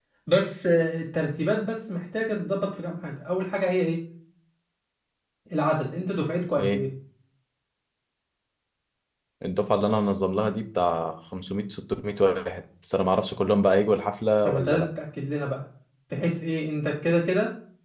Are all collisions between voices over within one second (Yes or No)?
Yes